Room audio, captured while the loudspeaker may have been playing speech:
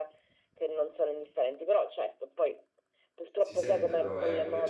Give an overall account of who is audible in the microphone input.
both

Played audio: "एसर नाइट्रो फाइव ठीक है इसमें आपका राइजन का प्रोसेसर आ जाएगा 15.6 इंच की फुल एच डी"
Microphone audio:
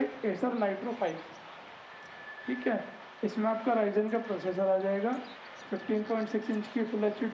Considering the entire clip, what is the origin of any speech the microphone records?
echo only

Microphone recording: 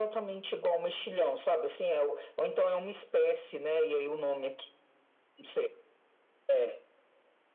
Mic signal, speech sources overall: echo only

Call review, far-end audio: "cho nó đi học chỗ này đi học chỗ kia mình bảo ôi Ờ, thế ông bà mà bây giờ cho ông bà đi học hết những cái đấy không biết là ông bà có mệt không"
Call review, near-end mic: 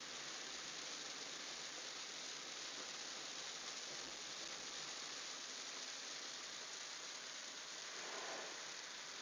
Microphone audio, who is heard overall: neither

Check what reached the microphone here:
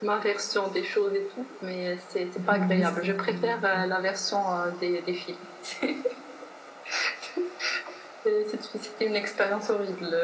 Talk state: both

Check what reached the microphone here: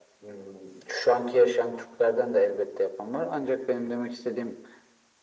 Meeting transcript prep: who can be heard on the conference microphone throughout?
echo only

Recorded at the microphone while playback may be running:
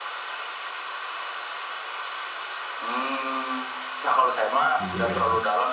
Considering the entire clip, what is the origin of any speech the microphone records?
both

